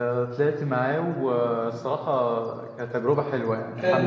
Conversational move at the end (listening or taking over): listening